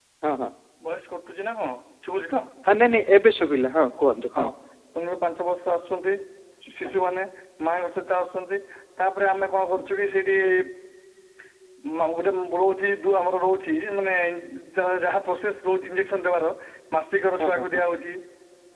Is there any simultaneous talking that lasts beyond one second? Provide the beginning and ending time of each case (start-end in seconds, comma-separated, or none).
none